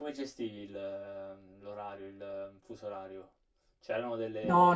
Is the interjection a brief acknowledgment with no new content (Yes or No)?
No